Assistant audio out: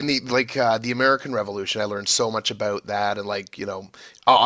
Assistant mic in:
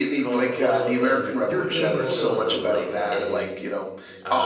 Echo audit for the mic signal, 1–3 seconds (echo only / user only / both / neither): both